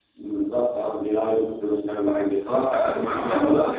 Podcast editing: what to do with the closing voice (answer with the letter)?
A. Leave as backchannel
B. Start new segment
B